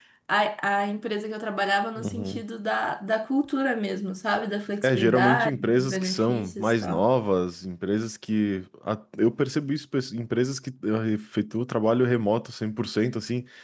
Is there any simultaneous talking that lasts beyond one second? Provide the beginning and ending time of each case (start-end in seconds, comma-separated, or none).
4.8-7.0